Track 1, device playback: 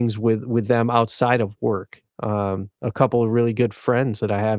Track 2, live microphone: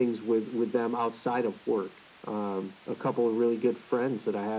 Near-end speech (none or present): none